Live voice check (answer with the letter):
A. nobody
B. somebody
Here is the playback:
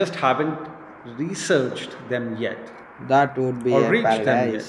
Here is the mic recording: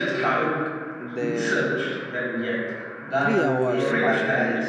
B